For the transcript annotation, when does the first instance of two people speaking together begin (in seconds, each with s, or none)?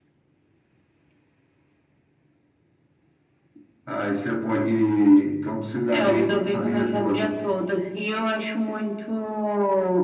5.9 s